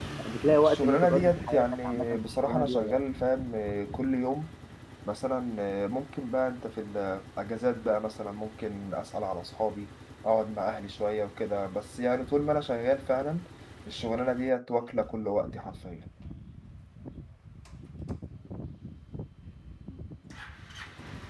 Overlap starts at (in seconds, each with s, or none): 0.6 s